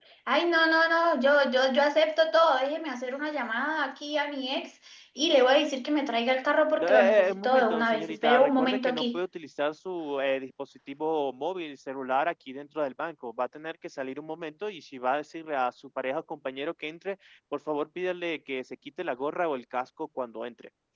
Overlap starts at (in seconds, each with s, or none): 6.8 s